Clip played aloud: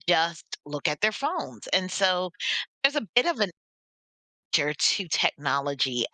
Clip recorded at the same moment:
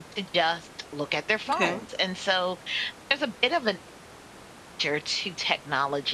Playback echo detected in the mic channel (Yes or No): Yes